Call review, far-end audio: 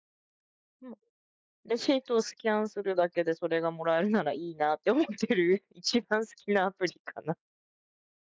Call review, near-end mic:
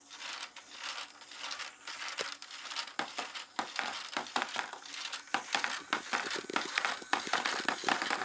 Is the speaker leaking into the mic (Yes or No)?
No